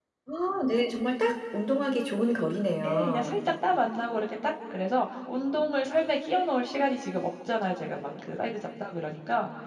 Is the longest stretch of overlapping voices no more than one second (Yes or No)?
Yes